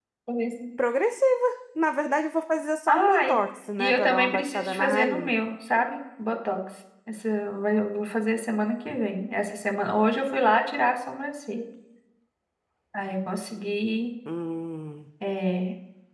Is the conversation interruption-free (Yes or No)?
No